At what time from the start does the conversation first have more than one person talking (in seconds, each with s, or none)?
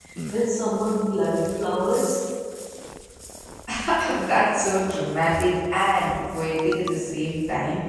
none